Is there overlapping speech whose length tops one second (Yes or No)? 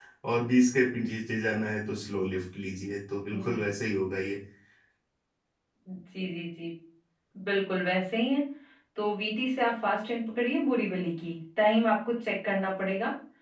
No